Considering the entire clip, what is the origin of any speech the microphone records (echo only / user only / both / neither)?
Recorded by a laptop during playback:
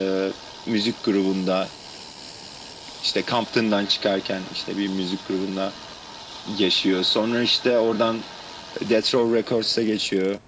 echo only